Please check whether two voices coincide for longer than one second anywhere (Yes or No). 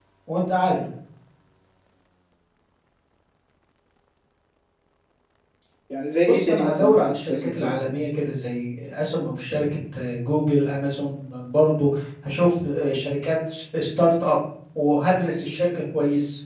Yes